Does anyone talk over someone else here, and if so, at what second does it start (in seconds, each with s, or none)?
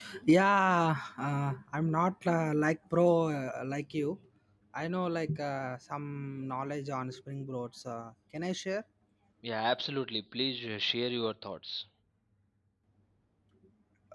none